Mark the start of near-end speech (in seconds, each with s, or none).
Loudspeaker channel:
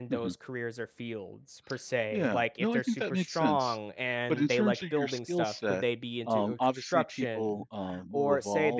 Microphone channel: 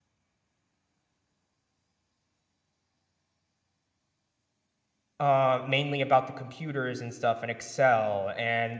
5.2 s